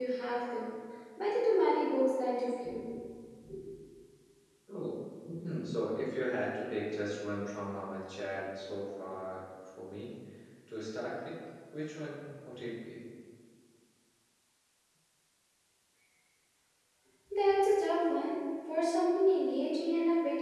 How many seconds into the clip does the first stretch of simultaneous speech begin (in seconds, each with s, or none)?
none